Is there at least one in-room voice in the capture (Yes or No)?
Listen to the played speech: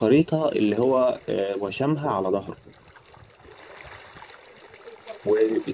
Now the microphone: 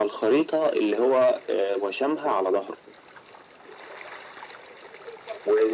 No